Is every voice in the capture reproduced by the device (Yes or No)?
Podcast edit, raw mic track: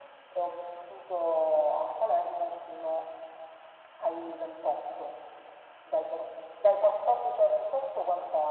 Yes